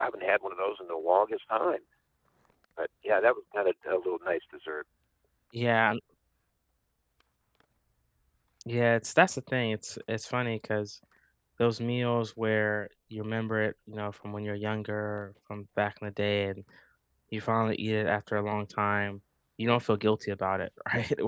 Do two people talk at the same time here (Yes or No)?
No